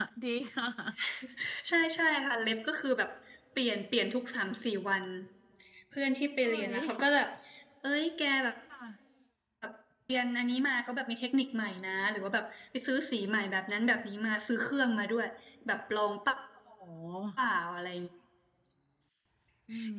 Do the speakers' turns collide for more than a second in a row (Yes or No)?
No